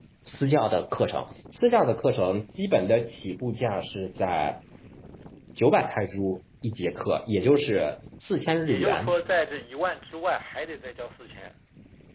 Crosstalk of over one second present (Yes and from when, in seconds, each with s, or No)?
No